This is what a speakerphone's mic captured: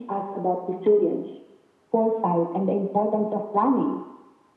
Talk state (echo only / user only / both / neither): echo only